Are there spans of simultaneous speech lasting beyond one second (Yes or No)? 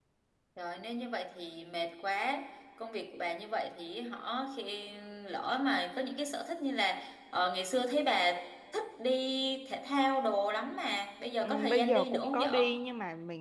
Yes